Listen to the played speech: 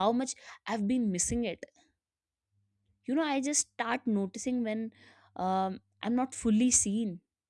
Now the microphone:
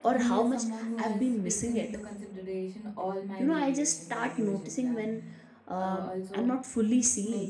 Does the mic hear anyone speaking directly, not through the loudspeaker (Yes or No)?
Yes